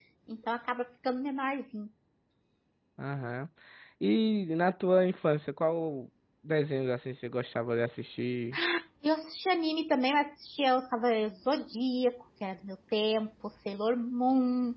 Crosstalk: none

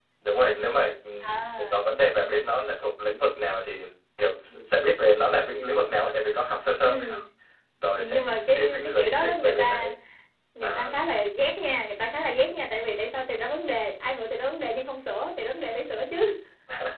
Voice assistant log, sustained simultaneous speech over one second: present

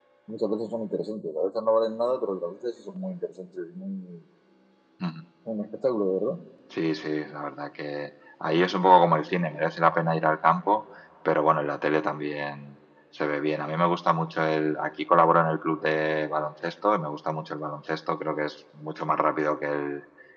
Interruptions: none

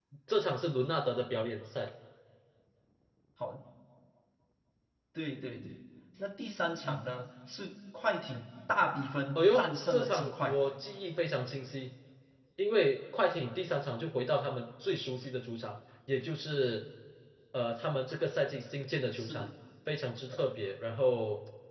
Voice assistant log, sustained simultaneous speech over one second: present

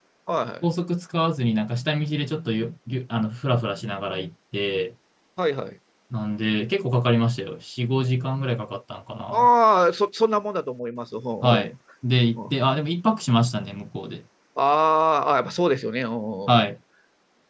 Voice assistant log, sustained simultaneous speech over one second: none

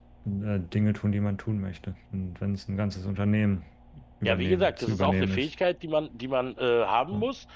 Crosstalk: present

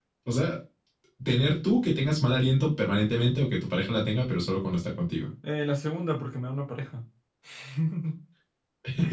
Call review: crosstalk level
none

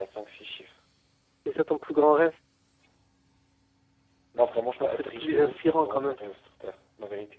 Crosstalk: present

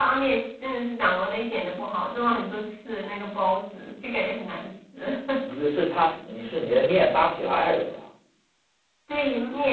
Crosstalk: none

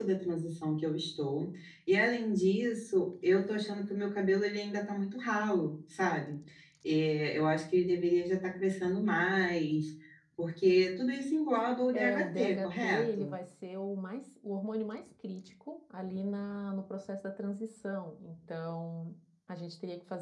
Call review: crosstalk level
present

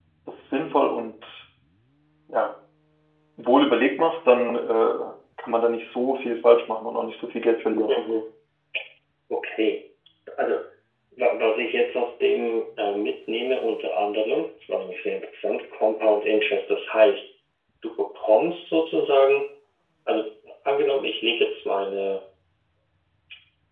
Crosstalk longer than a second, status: none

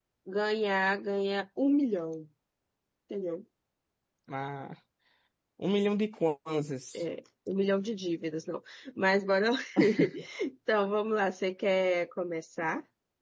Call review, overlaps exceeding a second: none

